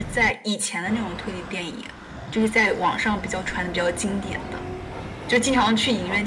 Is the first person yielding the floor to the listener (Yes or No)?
No